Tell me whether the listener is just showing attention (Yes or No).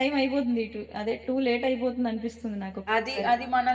No